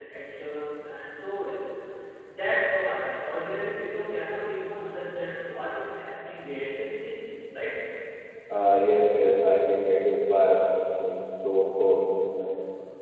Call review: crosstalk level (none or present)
none